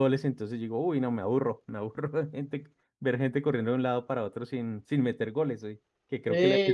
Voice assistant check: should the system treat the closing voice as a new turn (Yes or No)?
No